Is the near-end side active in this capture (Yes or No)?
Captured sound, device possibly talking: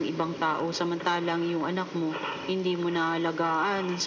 No